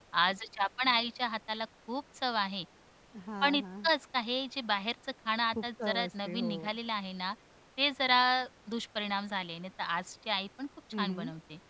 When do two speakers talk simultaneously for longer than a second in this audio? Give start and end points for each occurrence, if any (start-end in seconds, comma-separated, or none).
5.5-6.8